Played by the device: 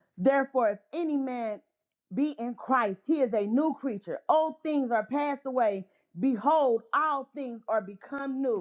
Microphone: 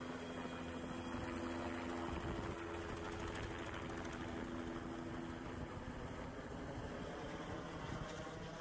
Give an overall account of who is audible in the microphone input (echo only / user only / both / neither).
neither